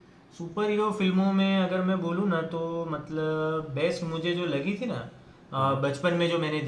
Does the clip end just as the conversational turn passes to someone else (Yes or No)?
No